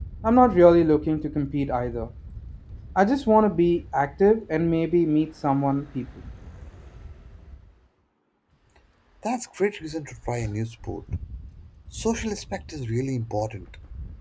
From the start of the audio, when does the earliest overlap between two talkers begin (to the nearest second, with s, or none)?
none